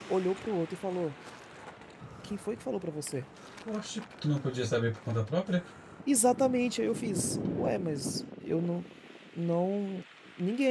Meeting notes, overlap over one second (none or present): none